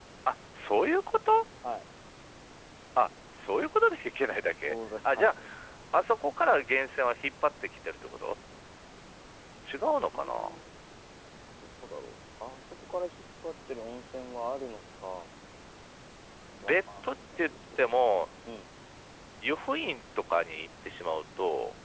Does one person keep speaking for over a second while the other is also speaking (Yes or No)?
Yes